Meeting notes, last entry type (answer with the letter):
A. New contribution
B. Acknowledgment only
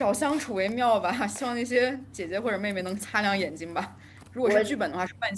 B